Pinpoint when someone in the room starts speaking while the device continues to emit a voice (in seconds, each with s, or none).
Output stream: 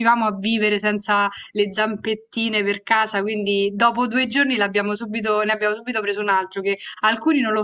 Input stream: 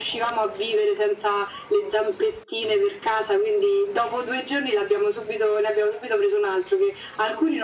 none